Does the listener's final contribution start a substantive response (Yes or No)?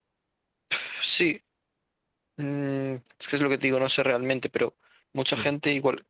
No